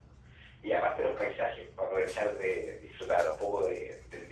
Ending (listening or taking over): listening